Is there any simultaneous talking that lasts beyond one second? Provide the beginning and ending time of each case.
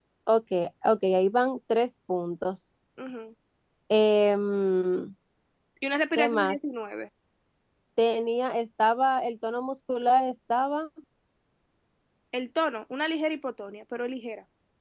none

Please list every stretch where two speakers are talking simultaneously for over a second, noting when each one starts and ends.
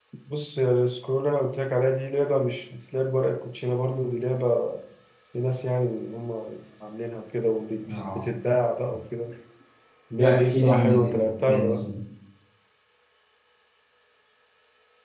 10.1-11.8

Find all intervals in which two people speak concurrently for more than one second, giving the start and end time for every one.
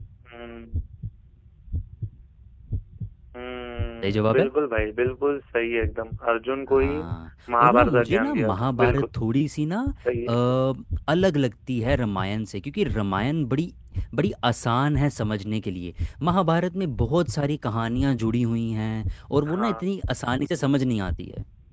7.6-9.0

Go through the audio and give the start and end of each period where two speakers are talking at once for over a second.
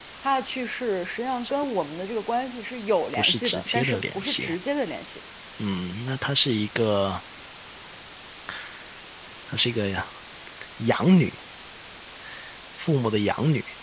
3.1-4.5

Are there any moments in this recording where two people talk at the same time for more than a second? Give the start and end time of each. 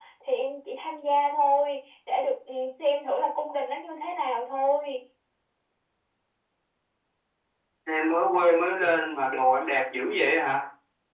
none

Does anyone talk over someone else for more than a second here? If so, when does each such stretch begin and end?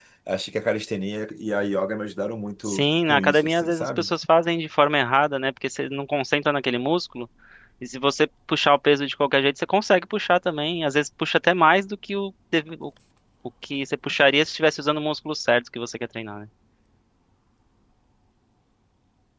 2.6-4.1

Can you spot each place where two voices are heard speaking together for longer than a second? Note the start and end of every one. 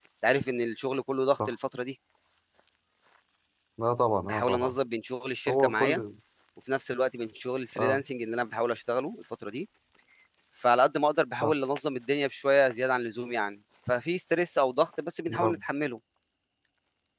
none

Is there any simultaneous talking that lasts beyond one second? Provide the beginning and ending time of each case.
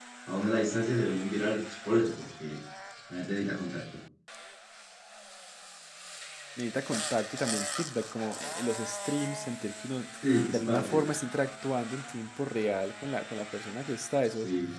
none

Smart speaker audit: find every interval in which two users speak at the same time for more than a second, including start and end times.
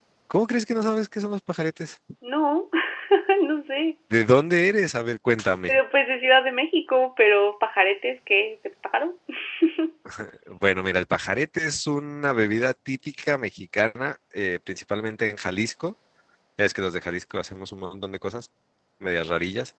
none

